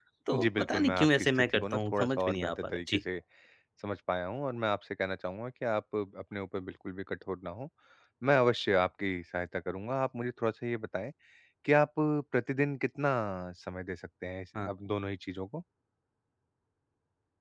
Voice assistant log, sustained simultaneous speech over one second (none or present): present